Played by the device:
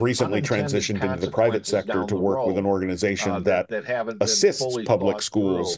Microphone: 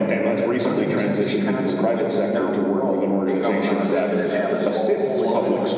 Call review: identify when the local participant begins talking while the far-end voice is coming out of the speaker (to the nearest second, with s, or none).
3 s